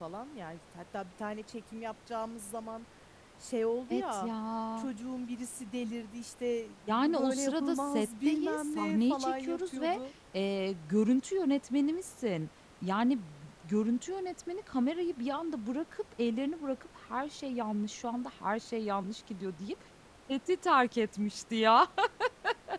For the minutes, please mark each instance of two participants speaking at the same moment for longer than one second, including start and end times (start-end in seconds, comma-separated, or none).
6.9-10.0